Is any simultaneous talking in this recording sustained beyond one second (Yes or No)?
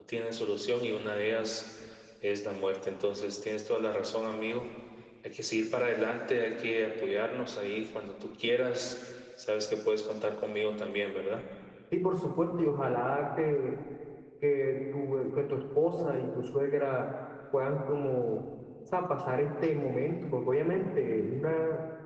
No